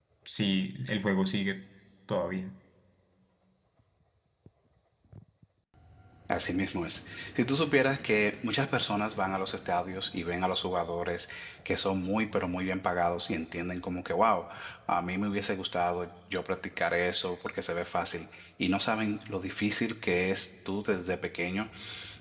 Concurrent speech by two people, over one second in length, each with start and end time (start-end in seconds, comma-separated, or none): none